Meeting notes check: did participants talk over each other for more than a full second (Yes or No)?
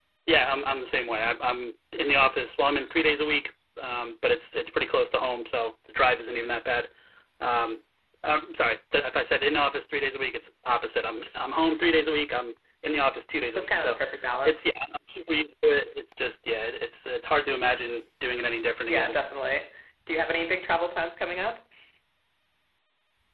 No